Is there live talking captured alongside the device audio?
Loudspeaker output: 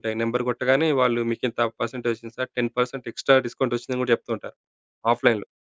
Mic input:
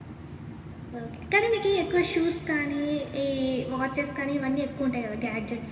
Yes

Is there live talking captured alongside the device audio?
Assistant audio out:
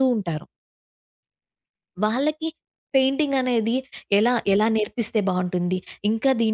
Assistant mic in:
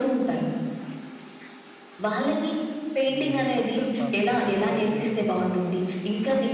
Yes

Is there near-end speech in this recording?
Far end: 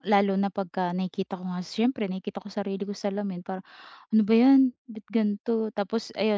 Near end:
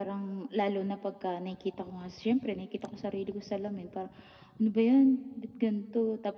No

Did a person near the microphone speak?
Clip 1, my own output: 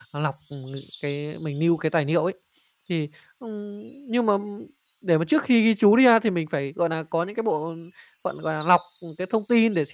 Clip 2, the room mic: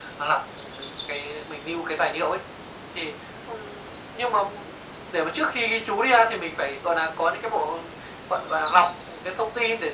No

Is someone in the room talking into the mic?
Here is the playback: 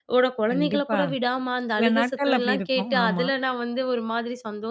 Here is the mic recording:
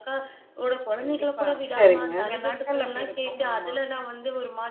Yes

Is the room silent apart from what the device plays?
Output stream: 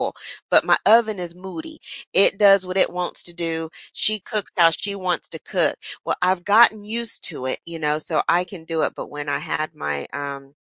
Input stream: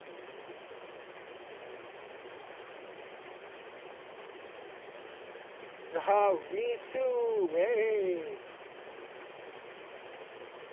No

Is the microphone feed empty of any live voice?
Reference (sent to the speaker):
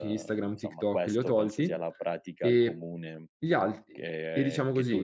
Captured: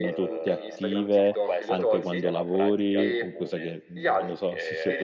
No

